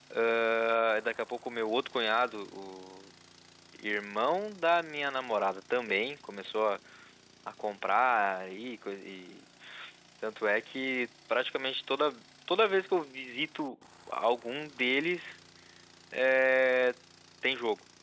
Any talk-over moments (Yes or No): No